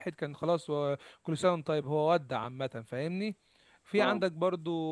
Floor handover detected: No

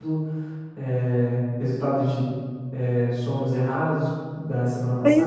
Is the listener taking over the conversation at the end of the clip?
Yes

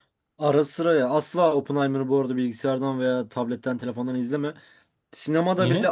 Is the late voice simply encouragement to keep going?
Yes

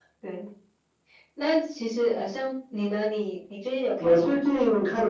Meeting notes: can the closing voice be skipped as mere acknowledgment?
No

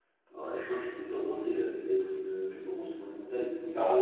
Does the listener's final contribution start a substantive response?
Yes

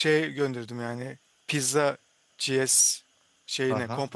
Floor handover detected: Yes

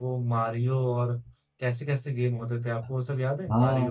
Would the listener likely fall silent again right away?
No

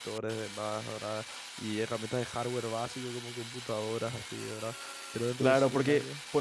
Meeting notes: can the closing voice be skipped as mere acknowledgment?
No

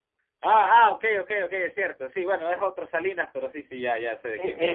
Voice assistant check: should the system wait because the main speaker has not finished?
No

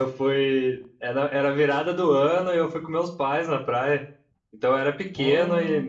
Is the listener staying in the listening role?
Yes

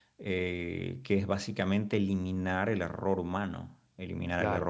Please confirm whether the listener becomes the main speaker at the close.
No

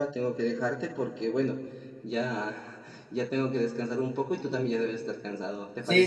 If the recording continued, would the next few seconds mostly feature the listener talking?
Yes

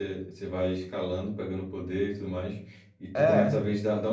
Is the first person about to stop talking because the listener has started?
No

